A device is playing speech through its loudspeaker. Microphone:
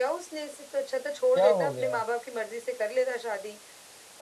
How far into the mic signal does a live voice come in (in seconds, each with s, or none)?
1.4 s